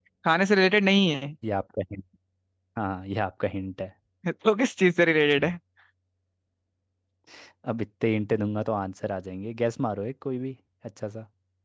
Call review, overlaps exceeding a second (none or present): none